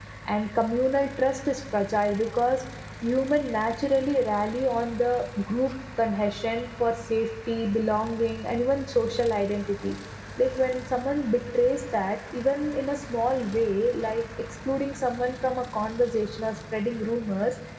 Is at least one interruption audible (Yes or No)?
No